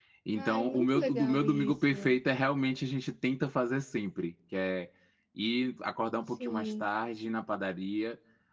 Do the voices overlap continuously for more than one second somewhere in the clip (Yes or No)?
Yes